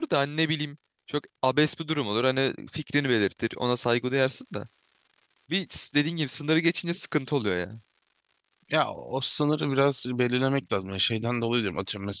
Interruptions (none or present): none